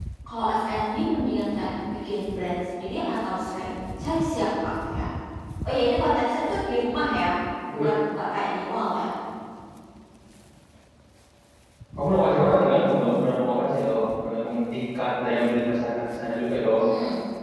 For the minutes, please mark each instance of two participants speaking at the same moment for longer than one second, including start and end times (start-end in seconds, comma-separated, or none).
none